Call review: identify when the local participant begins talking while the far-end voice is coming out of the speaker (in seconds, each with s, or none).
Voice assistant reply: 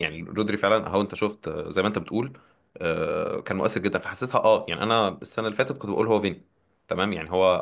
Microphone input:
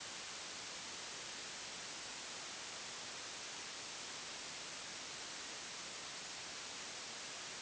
none